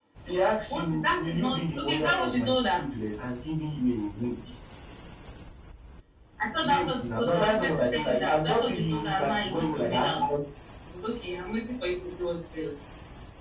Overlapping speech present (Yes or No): Yes